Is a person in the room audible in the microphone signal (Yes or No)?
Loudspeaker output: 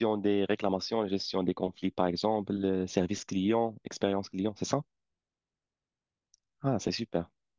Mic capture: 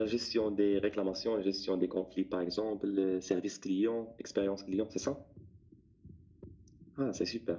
No